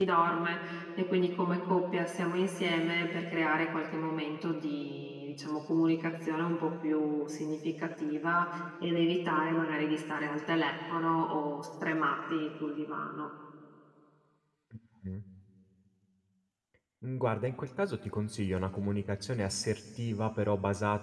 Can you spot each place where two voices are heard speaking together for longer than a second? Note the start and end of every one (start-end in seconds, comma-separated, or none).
none